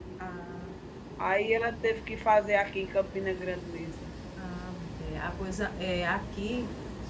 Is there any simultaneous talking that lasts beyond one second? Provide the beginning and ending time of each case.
none

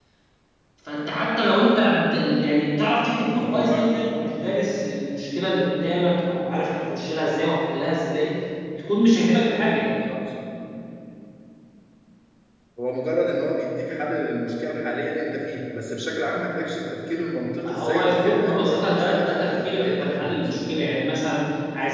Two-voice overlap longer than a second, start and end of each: 17.7-20.5

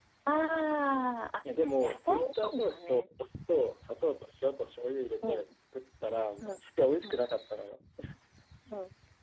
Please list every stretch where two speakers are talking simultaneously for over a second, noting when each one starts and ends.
1.8-3.0

